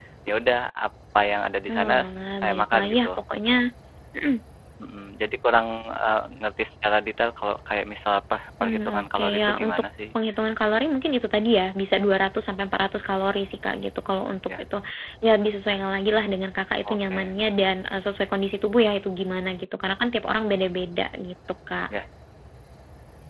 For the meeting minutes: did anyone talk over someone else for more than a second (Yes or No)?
Yes